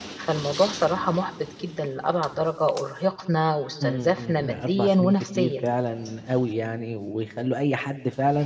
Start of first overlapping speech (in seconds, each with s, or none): 3.8 s